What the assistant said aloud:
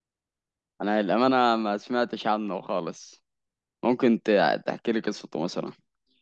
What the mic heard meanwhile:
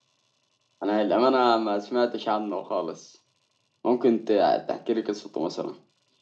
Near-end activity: none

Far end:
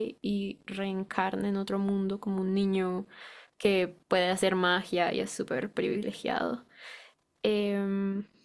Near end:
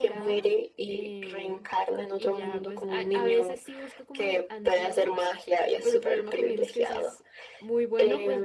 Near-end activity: present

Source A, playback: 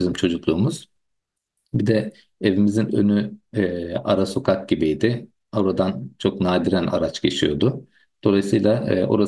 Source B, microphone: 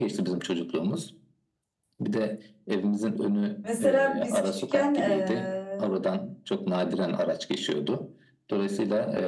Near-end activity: present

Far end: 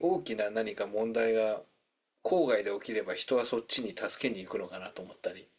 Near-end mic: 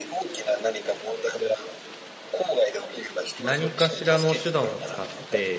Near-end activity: present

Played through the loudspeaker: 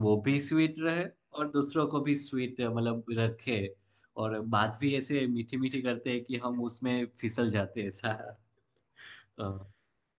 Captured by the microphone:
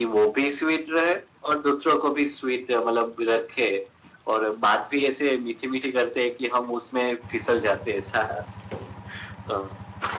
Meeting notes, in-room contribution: none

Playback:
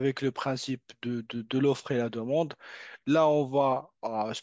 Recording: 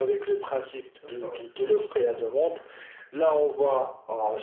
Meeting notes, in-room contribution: present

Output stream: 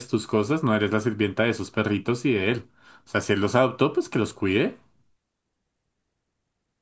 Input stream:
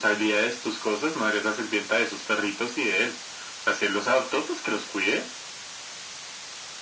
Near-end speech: none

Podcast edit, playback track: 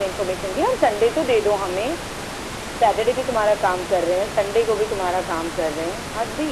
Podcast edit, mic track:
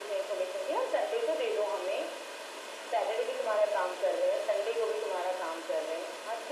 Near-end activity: none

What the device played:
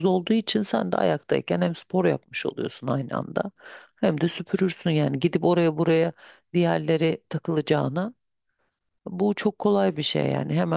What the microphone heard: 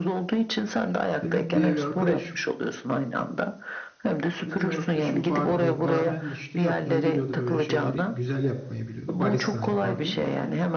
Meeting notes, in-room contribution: present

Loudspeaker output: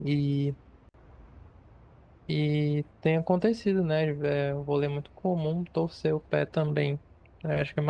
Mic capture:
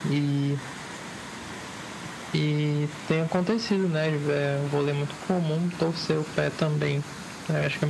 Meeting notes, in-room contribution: none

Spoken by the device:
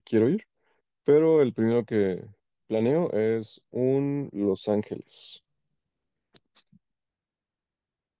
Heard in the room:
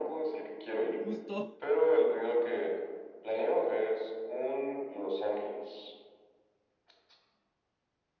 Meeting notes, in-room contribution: present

